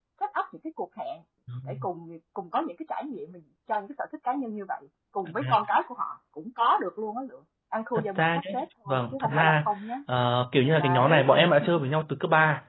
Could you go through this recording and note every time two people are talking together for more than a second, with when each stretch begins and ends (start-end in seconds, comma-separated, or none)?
8.0-9.7